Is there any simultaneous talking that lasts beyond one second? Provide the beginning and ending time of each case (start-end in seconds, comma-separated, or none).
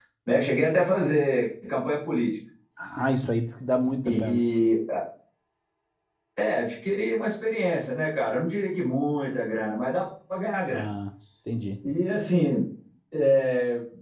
none